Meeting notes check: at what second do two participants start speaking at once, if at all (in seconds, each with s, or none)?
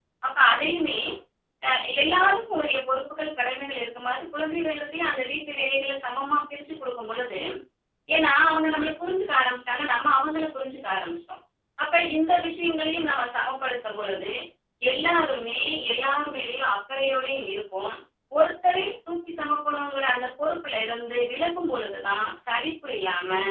none